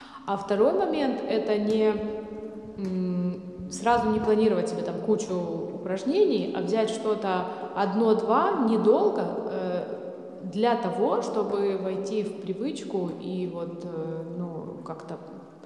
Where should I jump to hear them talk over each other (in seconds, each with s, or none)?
none